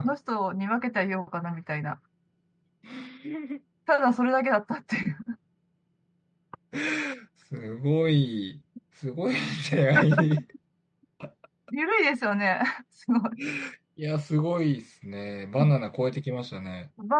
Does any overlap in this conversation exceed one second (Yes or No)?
No